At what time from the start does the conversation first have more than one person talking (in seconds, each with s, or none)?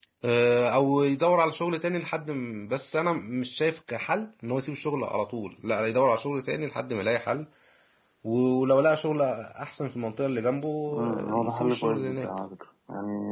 11.1 s